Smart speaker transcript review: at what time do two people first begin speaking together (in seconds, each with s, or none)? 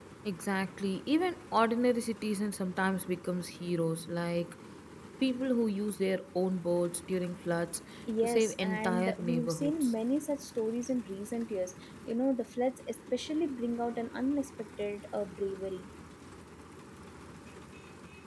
8.2 s